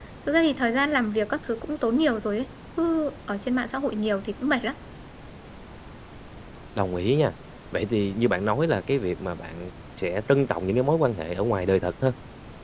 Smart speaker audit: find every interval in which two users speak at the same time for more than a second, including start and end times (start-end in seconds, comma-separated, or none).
none